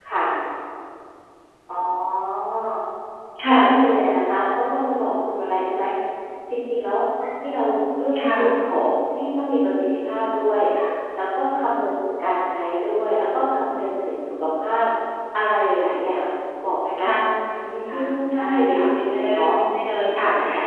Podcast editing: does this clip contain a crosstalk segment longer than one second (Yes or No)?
Yes